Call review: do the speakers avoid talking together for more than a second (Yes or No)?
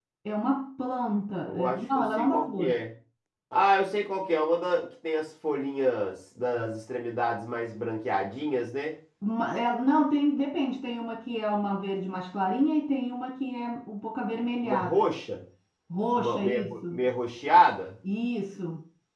No